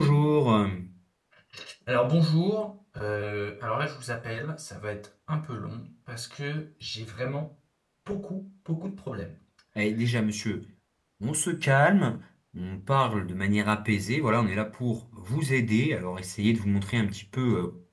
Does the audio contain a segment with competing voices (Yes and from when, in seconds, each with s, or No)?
No